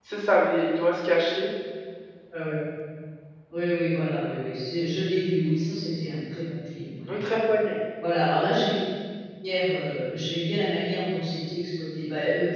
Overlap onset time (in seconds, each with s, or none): none